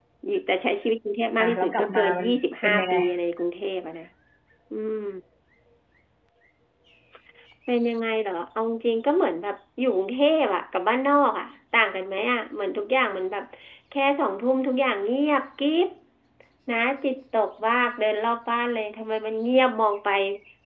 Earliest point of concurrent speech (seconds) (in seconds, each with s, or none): 1.4 s